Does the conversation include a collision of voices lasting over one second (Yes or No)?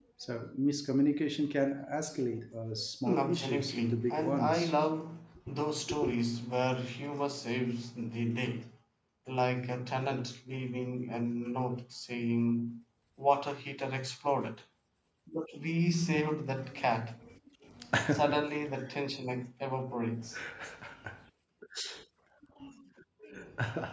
Yes